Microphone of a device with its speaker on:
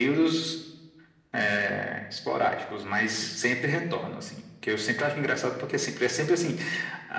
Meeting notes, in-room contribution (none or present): none